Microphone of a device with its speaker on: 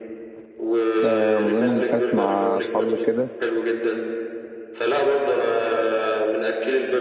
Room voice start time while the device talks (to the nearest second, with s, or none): 1 s